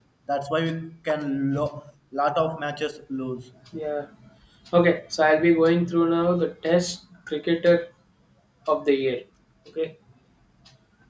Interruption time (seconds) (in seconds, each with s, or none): none